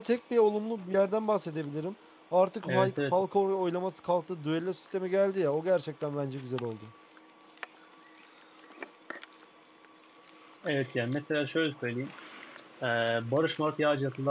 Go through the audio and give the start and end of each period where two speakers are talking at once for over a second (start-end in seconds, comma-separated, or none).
none